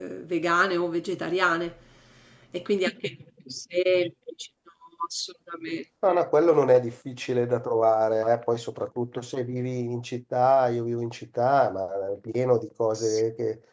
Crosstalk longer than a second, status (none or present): none